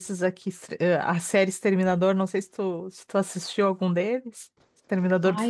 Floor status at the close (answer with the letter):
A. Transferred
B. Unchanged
A